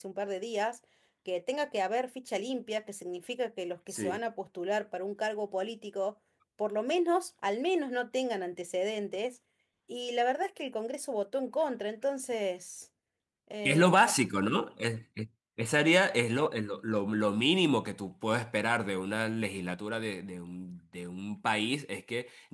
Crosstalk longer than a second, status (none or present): none